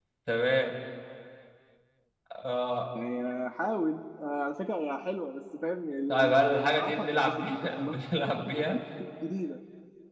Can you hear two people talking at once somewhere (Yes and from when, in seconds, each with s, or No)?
Yes, from 6.1 s